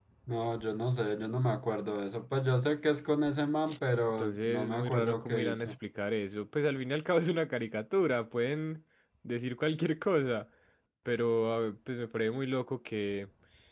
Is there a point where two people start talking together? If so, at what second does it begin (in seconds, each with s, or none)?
4.2 s